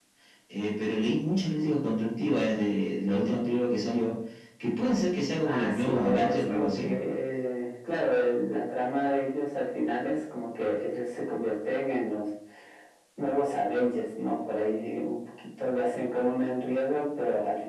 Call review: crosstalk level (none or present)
present